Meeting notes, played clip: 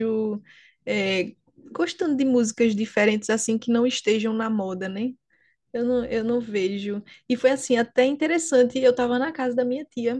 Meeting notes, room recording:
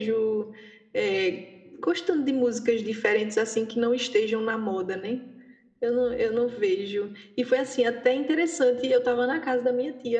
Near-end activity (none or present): none